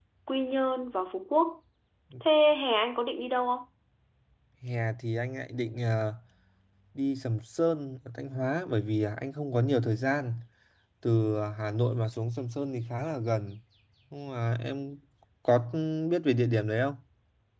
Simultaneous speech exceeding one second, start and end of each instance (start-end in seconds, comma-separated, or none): none